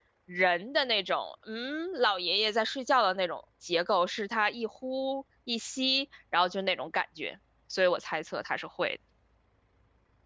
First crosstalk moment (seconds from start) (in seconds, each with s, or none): none